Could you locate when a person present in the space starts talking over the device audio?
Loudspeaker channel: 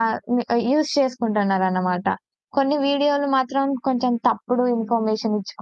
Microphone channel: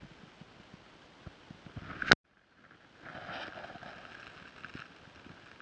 none

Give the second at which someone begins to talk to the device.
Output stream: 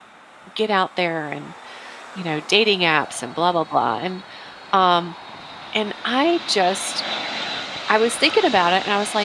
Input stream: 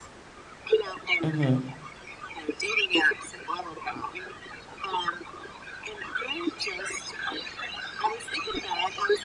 1 s

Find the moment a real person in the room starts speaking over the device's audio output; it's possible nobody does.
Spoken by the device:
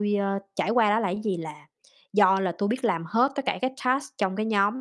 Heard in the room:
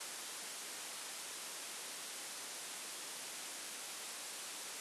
none

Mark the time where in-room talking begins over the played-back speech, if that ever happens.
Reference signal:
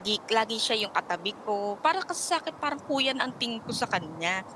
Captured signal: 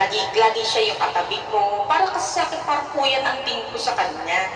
none

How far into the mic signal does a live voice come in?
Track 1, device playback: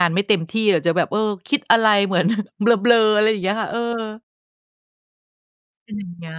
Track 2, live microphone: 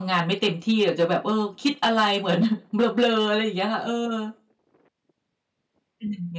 none

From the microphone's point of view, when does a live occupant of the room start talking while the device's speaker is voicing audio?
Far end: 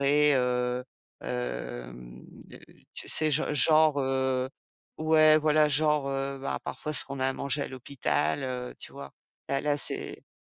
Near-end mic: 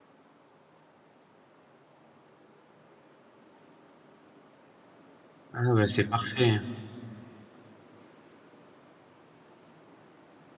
6 s

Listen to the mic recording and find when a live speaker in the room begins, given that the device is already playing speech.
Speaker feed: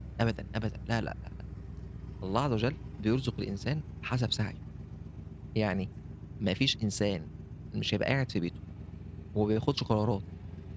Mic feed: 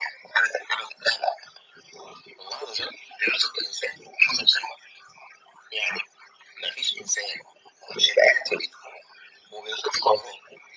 none

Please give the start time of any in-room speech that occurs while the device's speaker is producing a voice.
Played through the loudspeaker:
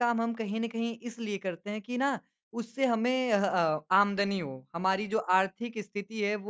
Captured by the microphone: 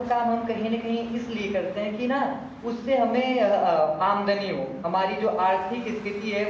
none

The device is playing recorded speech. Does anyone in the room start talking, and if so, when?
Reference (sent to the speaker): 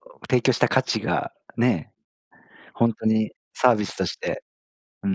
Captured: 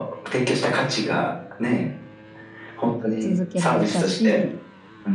3 s

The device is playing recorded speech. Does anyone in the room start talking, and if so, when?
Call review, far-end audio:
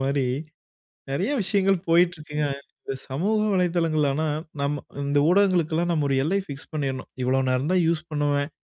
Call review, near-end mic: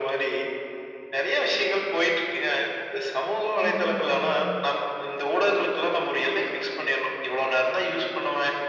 4 s

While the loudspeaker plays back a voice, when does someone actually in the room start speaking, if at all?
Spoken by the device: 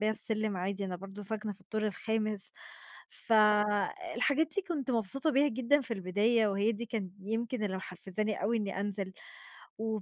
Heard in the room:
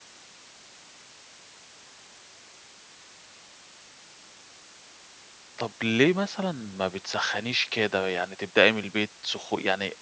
6 s

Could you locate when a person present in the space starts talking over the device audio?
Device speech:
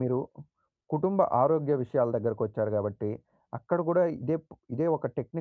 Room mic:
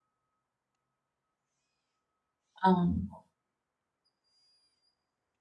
3 s

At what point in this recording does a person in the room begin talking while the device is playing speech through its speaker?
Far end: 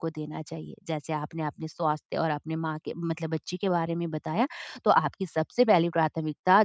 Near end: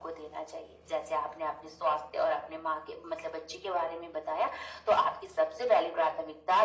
none

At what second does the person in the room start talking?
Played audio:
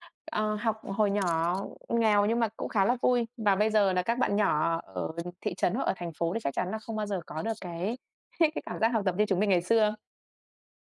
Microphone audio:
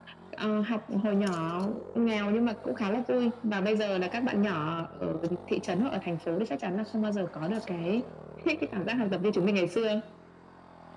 none

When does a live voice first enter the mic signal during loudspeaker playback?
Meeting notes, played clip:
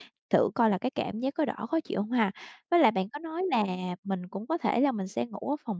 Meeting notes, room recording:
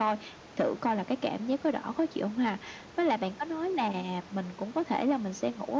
none

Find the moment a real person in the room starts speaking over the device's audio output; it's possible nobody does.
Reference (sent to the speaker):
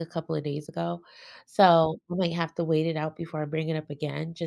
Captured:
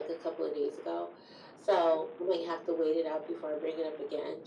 none

